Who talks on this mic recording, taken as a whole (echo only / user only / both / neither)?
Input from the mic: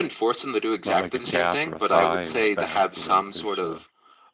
both